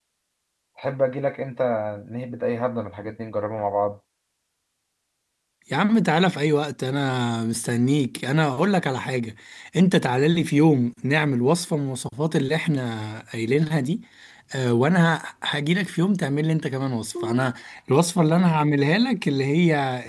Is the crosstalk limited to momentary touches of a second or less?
Yes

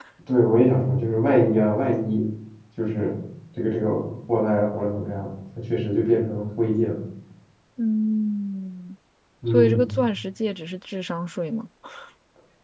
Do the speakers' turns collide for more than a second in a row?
No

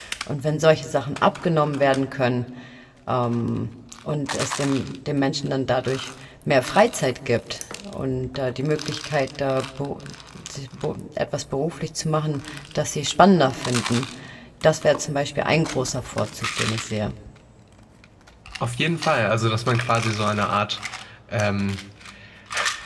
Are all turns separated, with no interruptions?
Yes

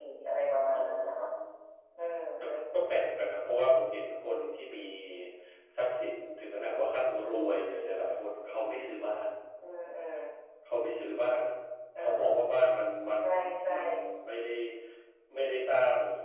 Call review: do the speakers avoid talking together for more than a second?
Yes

